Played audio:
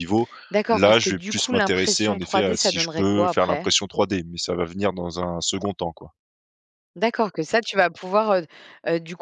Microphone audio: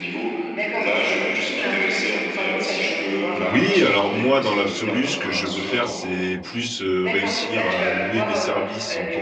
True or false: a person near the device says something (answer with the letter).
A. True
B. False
A